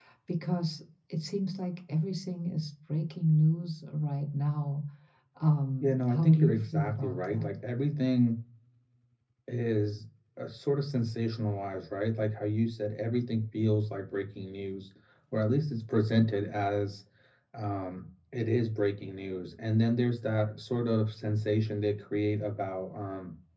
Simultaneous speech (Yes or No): Yes